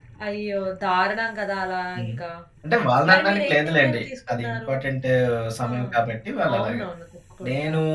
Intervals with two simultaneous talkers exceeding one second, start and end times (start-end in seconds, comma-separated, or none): 3.1-4.7